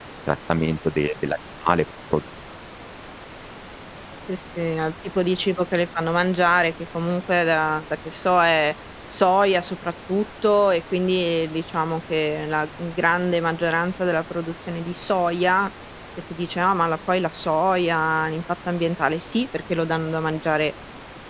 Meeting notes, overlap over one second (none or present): none